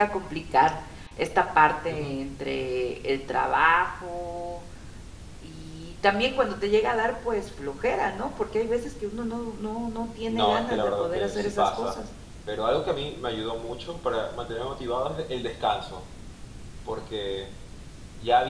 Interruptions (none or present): present